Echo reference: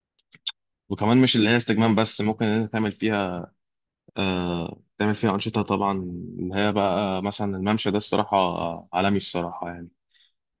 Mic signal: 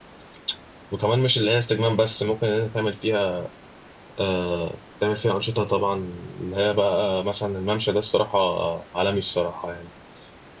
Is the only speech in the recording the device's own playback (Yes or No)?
Yes